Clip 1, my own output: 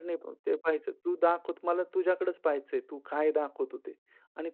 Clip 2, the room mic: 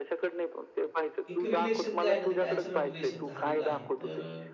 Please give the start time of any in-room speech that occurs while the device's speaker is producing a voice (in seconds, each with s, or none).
1.3 s